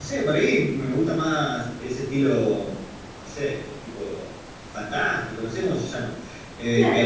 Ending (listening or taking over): taking over